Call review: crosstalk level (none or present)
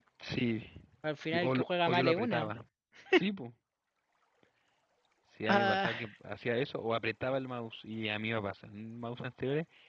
present